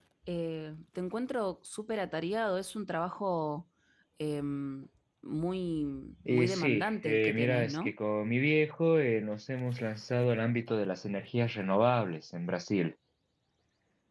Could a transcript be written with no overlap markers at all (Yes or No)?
No